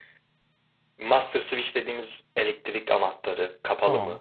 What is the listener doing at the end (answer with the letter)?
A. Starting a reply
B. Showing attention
B